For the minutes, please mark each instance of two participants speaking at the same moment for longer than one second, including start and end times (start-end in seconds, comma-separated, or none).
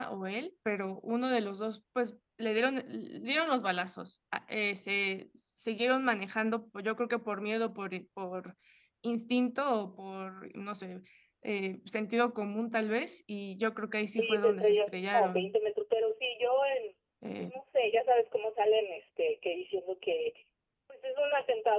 14.1-15.5